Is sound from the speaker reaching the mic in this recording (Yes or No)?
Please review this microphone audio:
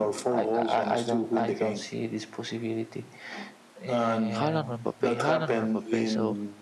Yes